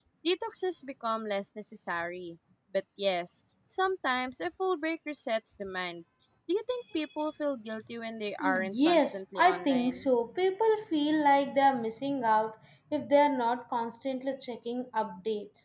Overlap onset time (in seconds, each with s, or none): 8.4 s